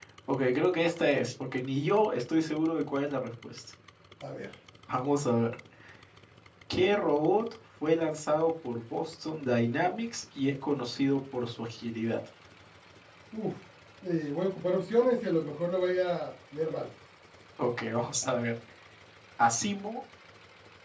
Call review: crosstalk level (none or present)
none